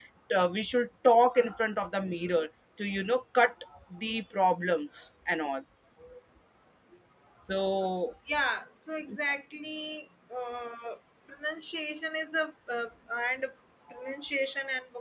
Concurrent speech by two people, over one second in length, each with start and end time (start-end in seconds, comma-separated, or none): none